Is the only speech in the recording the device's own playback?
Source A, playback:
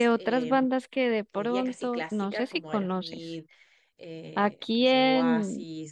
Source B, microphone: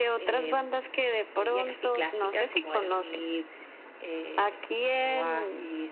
Yes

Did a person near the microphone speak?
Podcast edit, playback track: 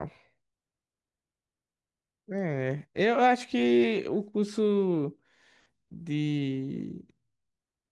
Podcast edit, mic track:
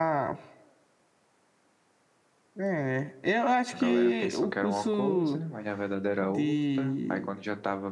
Yes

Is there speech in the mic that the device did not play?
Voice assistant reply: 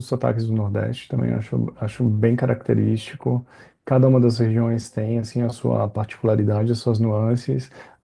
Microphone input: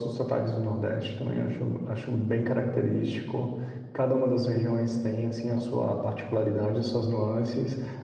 No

